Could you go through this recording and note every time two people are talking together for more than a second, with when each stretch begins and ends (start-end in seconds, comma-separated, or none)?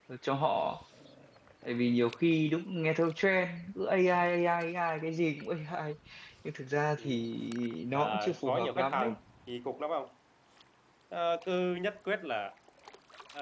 7.9-9.2